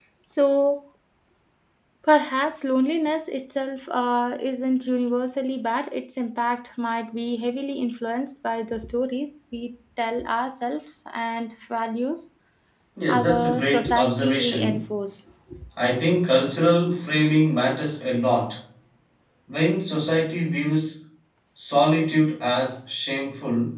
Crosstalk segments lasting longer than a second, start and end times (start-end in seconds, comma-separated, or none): 13.1-14.8